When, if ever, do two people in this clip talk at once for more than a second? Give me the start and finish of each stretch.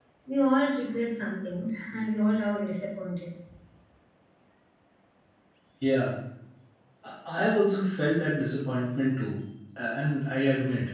none

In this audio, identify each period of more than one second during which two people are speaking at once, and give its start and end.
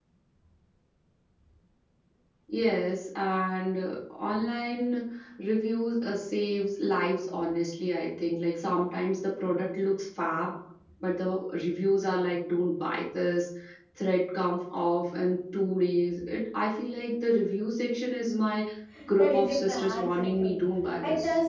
19.2-20.6

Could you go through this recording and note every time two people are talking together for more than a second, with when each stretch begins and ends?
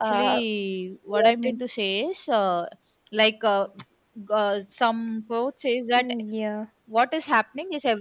none

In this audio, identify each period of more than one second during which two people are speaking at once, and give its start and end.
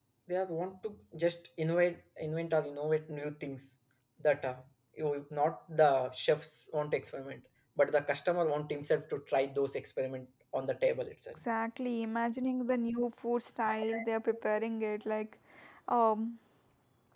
none

